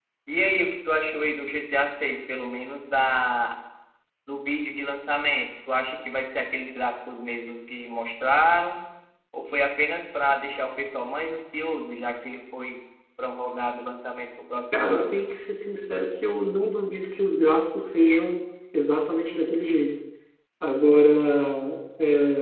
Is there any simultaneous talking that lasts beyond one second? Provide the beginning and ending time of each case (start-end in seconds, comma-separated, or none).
none